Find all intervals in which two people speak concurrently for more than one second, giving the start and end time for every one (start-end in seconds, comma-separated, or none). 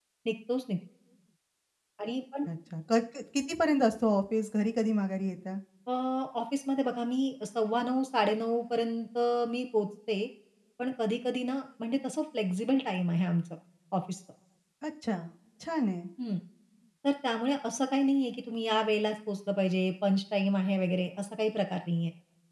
none